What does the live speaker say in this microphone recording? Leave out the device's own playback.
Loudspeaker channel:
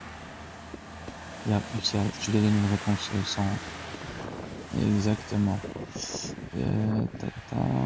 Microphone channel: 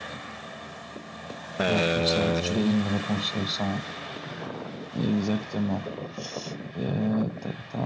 Euh,

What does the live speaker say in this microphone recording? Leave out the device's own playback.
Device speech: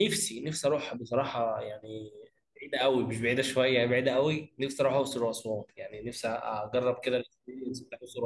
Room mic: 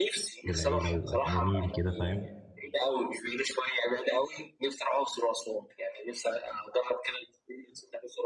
بالعيله ويبقى جميل كده فاهم

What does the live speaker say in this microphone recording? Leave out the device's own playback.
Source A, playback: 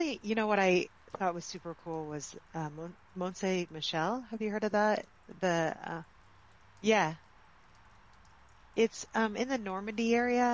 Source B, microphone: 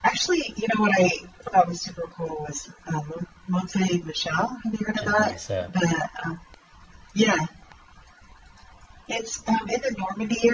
and then it's a

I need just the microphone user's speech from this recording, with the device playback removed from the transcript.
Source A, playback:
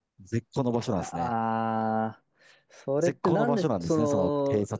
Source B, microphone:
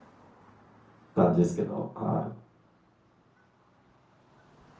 感じですけど。は

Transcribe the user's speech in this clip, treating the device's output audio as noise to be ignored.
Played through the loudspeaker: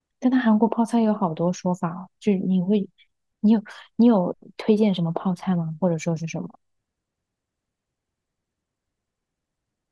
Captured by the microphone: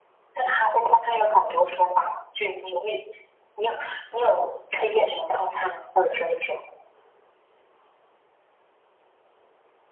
none

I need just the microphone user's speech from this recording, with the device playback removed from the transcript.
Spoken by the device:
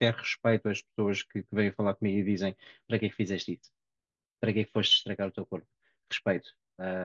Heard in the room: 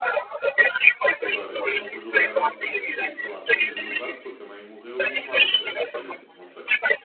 Agora, eu não vou julgar alguém que tenha escrito, sei lá, Teresa no braço porque a mãe morreu e chamava-se Teresa, por exemplo. Não sei.

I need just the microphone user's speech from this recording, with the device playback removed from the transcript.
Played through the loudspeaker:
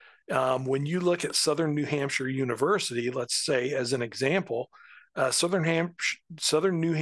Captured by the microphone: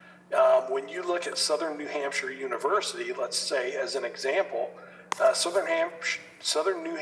none

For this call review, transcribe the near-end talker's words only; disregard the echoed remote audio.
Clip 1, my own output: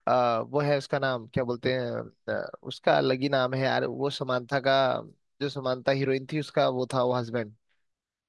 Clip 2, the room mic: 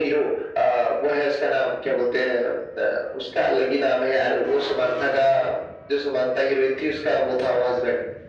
none

